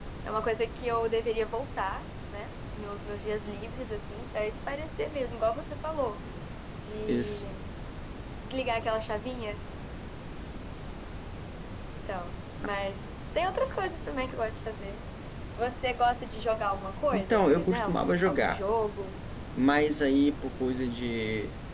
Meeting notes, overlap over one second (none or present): present